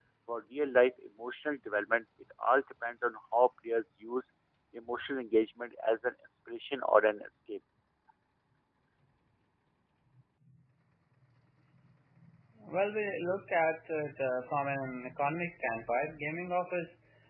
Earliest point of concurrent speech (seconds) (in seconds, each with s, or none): none